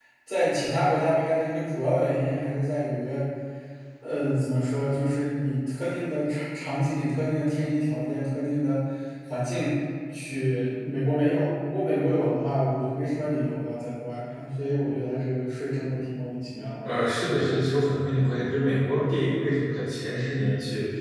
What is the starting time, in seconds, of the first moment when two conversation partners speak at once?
none

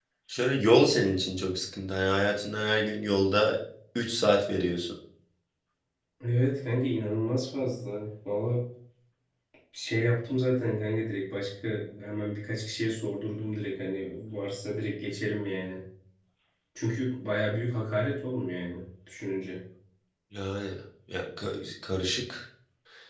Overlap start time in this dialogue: none

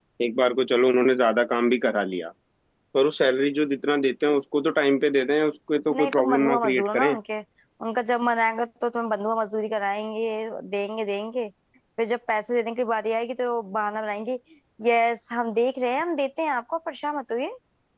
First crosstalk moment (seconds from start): 5.9 s

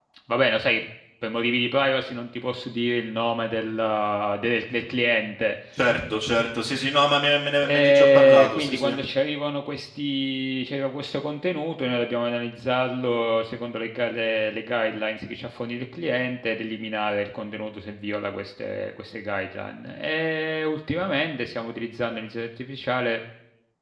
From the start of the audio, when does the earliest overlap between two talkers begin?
7.6 s

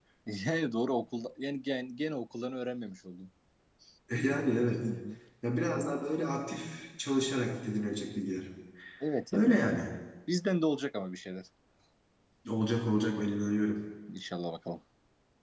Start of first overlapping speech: none

